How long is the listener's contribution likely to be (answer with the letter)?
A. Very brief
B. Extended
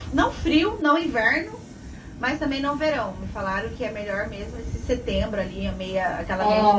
B